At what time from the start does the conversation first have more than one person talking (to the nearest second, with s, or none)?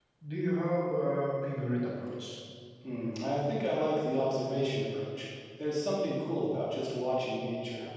none